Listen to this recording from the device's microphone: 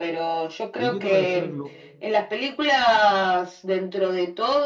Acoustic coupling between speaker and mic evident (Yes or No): Yes